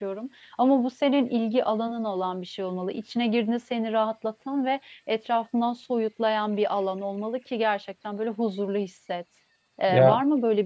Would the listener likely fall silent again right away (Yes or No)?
Yes